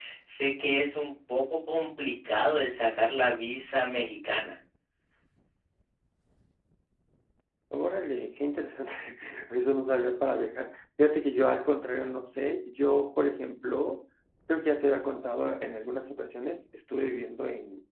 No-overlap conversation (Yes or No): Yes